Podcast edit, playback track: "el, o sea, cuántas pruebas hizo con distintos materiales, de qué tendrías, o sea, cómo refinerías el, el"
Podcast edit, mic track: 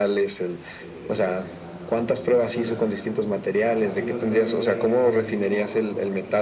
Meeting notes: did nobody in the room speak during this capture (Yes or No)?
No